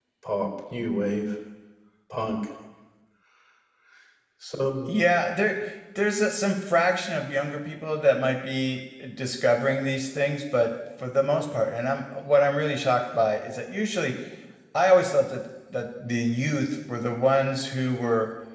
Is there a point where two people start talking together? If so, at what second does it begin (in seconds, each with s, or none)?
none